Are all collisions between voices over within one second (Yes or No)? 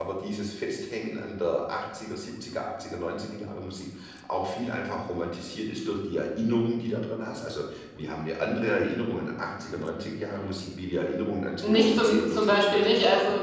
No